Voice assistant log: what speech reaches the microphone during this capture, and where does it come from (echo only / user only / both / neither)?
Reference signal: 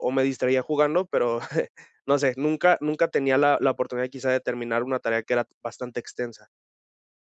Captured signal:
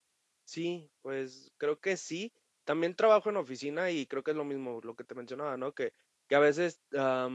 user only